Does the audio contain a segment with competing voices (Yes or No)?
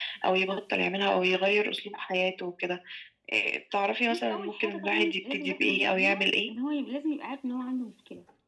Yes